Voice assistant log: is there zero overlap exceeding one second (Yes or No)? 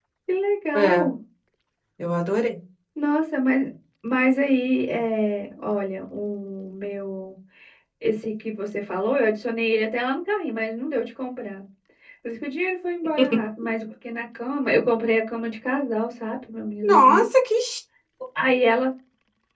Yes